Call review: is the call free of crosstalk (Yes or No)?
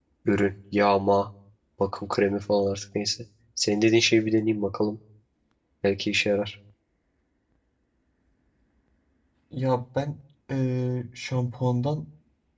Yes